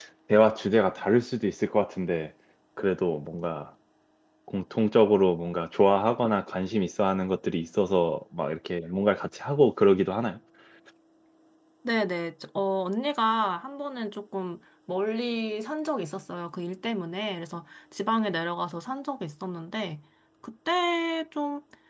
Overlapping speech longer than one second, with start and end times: none

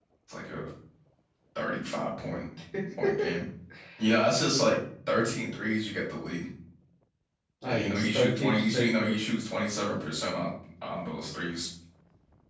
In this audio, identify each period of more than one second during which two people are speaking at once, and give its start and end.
7.6-9.3

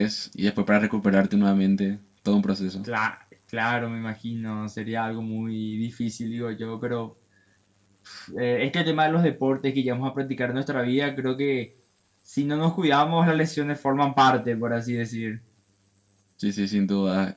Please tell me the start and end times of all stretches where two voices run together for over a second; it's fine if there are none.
none

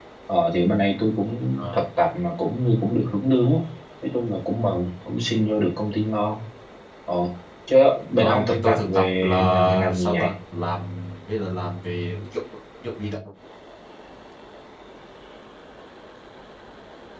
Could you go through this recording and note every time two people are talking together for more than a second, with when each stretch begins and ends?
8.2-10.3

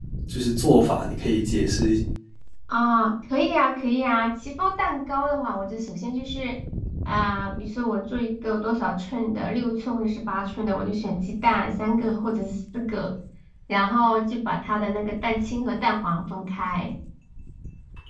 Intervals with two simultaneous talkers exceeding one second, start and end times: none

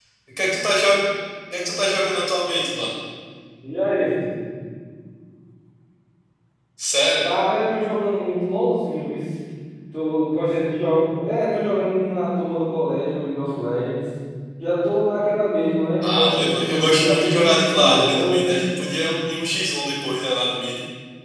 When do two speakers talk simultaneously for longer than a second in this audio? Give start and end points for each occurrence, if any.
16.0-18.6

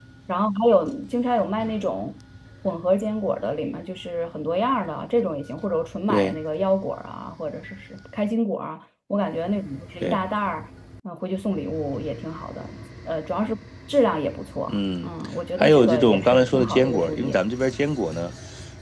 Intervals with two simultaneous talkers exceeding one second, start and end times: 15.6-17.4

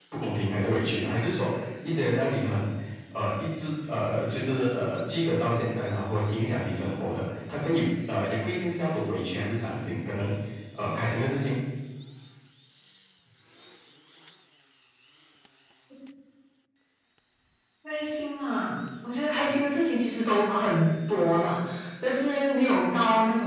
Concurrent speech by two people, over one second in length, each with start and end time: none

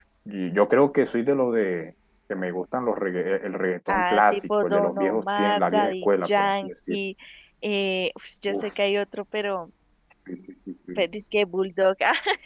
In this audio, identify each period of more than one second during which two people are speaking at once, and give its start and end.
3.9-7.0

